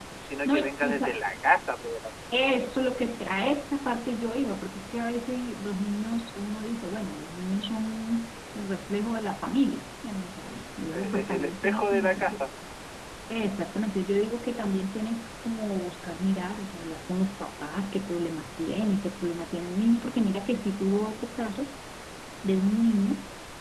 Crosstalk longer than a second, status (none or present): present